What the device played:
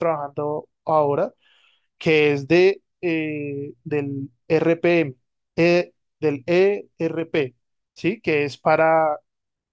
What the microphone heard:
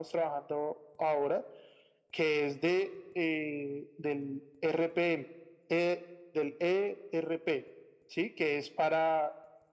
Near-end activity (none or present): none